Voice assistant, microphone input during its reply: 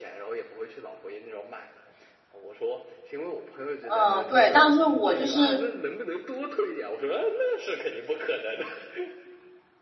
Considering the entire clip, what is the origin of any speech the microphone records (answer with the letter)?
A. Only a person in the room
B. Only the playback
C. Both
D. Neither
C